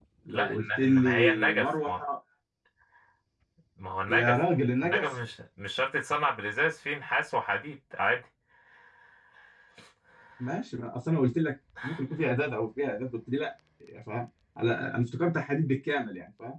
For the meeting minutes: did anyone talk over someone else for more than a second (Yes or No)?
Yes